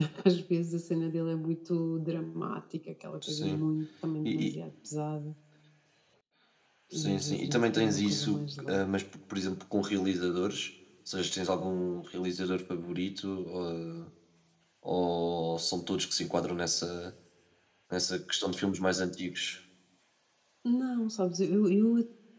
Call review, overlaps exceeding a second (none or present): present